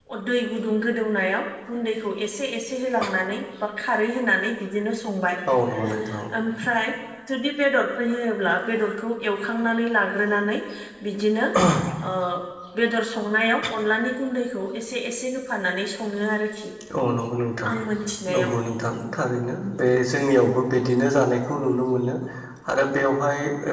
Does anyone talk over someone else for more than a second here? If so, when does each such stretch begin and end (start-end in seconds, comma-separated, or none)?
none